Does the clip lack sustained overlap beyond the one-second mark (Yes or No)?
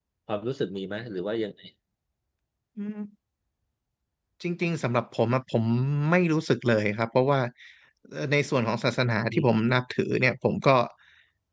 Yes